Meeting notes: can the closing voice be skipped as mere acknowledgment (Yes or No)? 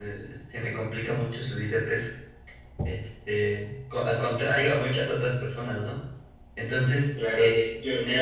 No